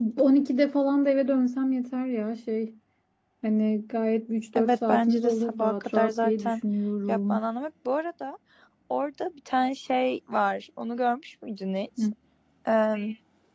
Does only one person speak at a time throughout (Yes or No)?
No